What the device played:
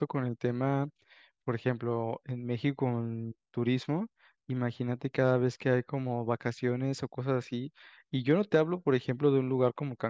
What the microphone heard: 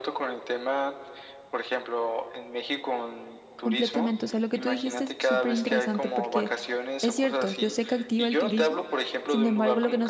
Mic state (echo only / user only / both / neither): both